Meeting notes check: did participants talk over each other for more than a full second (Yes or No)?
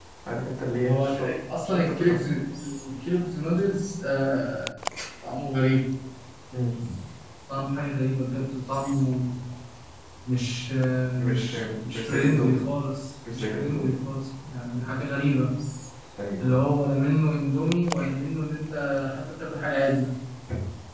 Yes